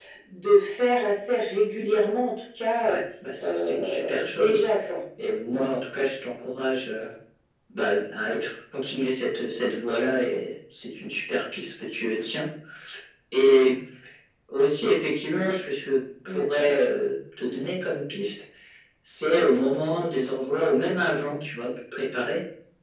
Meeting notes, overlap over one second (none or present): present